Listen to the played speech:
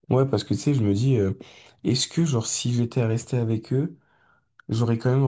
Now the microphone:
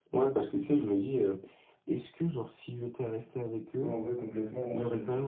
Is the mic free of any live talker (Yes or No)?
No